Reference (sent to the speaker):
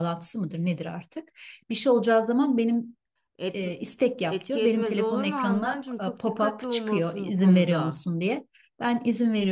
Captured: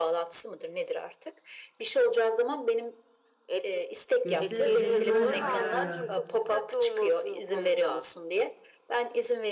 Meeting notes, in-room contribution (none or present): present